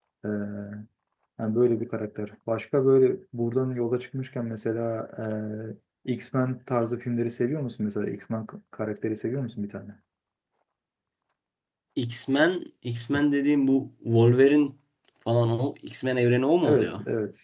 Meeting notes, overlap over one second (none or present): none